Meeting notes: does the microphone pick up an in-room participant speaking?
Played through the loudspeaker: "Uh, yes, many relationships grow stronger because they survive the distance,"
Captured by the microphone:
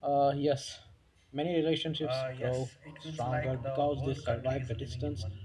Yes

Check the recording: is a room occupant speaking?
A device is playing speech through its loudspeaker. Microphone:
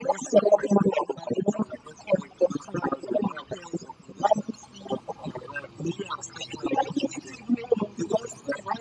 No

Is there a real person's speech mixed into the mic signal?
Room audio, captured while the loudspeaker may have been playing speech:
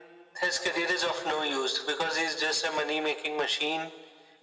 No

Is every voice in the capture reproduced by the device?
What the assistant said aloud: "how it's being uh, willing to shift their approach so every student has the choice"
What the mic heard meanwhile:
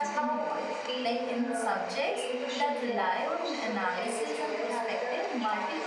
No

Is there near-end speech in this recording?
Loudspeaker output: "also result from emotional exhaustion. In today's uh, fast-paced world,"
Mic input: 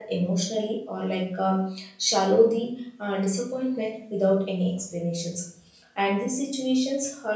Yes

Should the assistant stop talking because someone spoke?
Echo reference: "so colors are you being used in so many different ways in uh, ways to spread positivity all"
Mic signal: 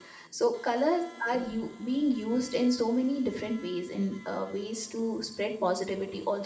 No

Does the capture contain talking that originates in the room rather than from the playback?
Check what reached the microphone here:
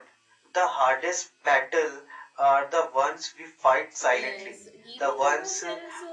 Yes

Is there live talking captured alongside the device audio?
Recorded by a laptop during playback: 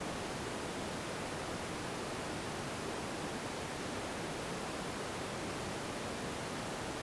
No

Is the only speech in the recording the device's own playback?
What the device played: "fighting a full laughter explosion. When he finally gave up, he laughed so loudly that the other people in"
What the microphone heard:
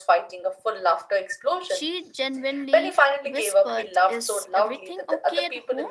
No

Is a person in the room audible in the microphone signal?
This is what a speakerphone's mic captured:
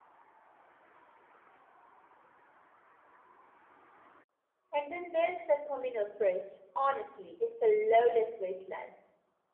Yes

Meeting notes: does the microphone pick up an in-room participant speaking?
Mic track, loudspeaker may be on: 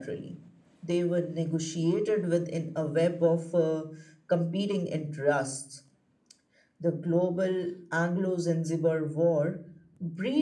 No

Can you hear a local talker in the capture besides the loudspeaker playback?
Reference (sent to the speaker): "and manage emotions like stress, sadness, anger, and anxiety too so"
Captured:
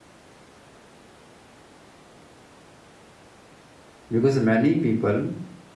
Yes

